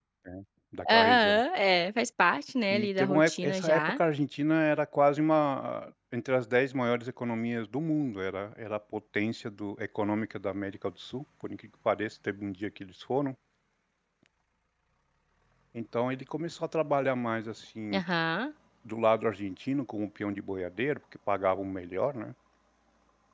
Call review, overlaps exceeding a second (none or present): present